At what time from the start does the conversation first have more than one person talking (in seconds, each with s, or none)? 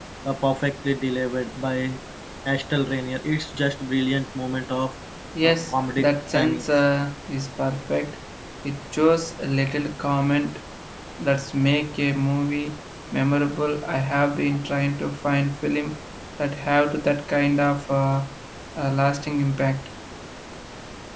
5.4 s